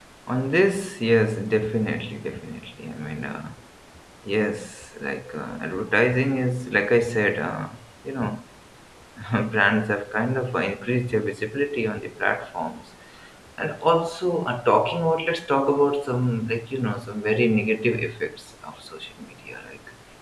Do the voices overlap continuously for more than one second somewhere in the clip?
No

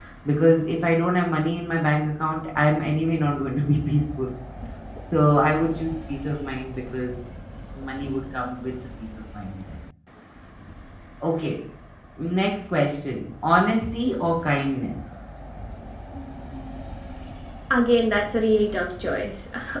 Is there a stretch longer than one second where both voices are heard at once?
No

